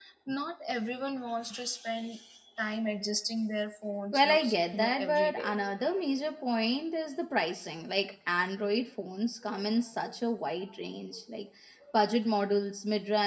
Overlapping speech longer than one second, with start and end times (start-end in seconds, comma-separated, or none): 4.1-5.5